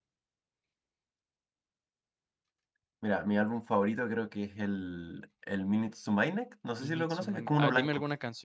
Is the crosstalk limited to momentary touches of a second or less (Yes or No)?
No